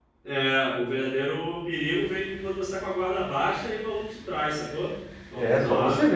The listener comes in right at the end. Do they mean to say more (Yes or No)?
Yes